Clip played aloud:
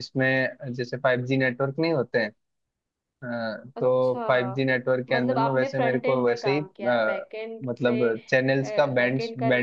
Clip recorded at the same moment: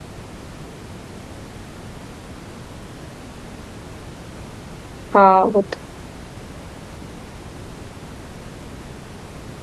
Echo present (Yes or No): No